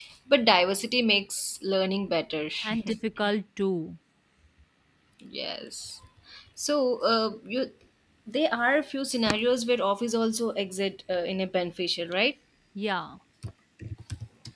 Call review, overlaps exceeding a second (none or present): none